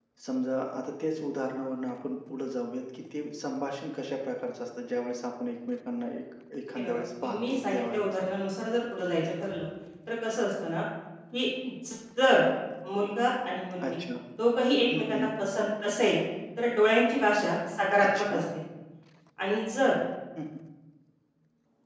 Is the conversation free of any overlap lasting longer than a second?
No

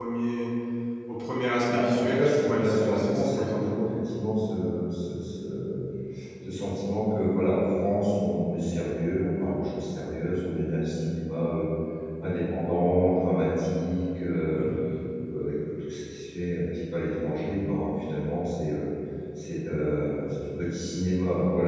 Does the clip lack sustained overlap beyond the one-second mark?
No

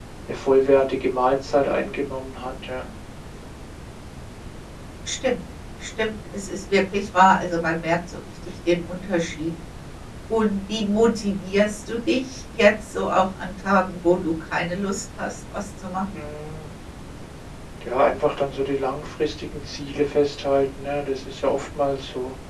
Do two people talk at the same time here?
No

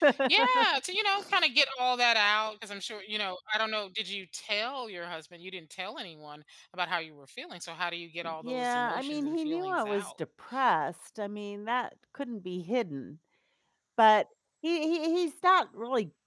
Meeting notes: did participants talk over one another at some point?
Yes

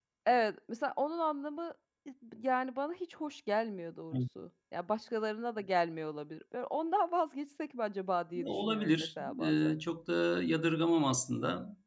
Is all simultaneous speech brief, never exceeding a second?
No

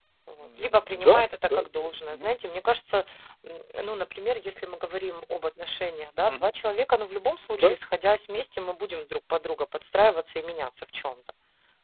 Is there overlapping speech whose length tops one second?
Yes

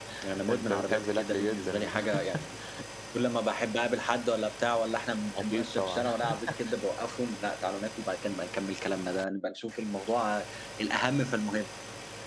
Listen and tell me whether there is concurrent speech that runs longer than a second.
Yes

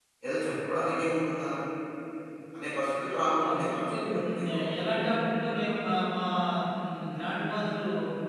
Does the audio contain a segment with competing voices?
Yes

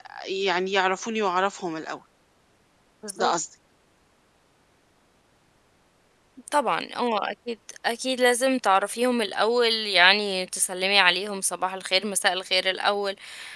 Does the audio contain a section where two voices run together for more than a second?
No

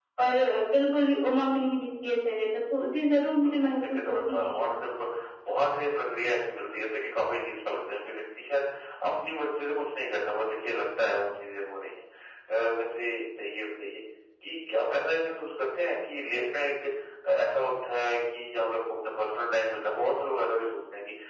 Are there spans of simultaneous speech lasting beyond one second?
Yes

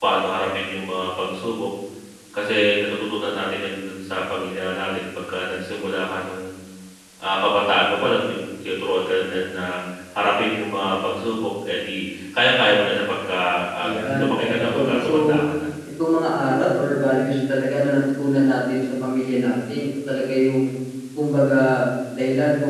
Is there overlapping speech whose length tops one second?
Yes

